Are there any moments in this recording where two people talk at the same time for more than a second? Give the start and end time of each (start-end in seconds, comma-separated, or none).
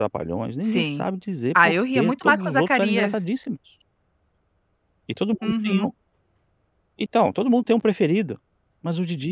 1.6-3.2